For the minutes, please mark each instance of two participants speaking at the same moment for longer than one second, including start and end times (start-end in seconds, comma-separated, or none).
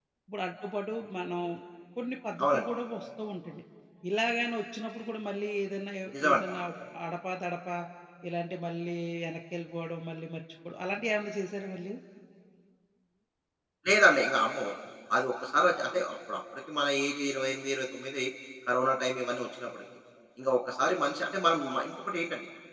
none